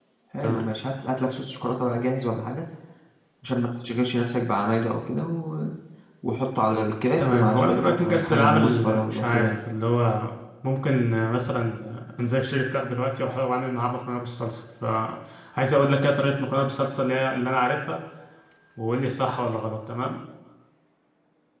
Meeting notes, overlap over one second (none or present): present